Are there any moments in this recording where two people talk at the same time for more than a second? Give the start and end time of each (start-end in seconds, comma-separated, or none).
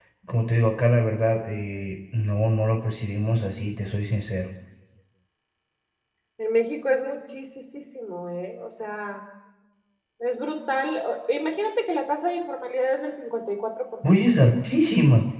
none